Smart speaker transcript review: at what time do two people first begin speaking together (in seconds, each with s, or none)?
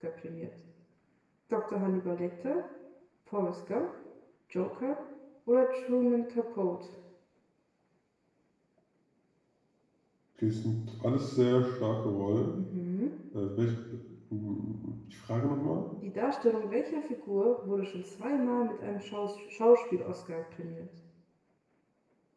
none